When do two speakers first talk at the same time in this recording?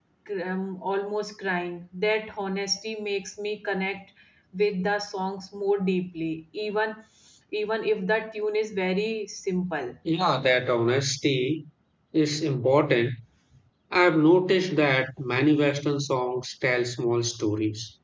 none

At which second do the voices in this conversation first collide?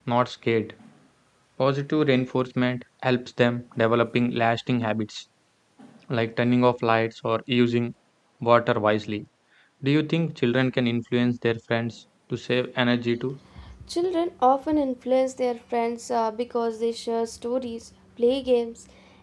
none

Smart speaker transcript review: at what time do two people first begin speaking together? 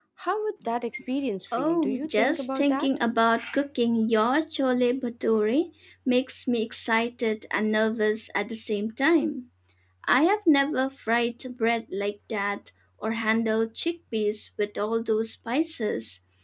1.5 s

